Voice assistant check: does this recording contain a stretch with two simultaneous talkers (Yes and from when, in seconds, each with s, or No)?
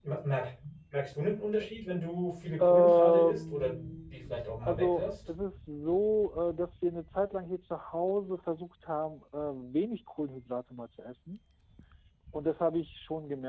Yes, from 2.6 s